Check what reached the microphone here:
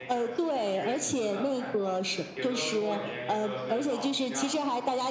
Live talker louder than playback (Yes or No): No